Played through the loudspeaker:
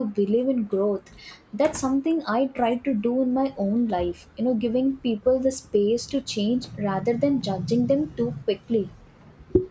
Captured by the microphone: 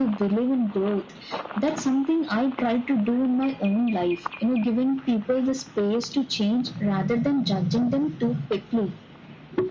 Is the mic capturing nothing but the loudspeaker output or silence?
Yes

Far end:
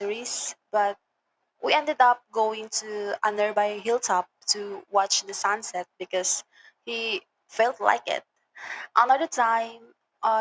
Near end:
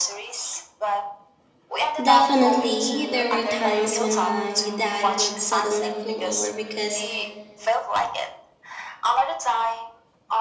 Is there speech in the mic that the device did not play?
Yes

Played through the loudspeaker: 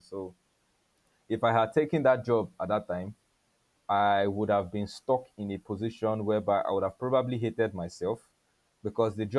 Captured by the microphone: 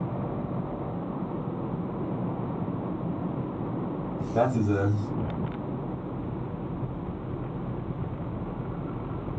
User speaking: Yes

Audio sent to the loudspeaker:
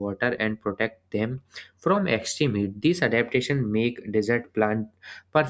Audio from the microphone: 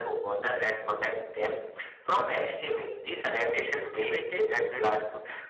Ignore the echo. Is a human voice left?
Yes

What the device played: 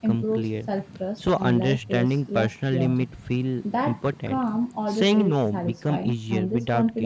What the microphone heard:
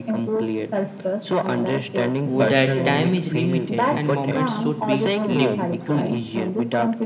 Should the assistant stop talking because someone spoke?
Yes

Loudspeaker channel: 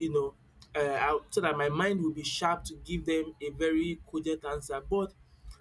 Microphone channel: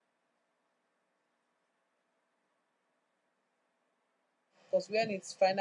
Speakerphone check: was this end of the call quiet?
No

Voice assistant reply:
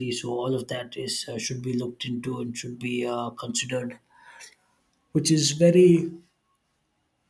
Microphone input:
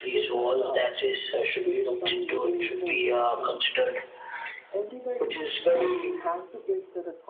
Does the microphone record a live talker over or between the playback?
Yes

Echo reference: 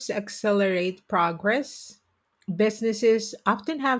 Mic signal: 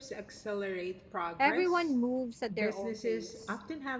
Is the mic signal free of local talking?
No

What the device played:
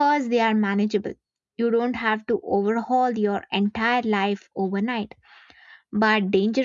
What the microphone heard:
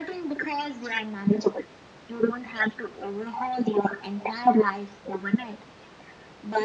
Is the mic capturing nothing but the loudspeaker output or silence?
Yes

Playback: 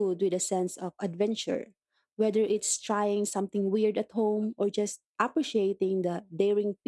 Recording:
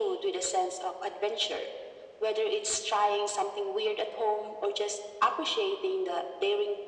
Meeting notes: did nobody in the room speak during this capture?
Yes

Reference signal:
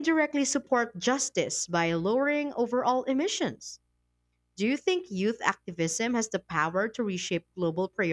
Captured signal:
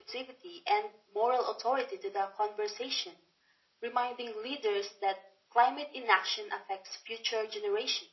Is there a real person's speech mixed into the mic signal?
Yes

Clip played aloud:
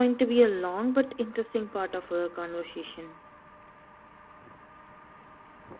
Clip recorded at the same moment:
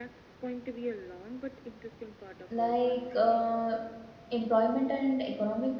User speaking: Yes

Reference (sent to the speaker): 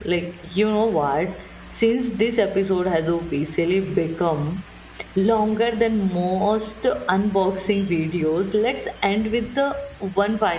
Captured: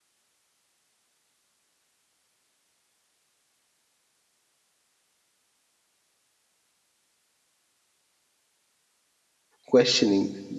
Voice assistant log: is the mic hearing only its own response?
No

